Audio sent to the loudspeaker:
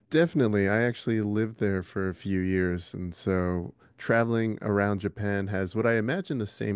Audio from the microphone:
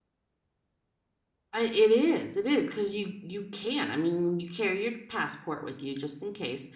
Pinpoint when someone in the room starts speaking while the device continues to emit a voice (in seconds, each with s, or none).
1.5 s